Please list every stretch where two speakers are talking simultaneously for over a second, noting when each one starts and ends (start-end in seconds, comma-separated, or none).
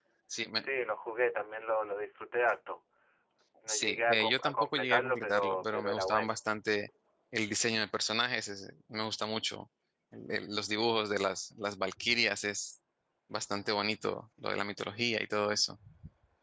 3.7-6.4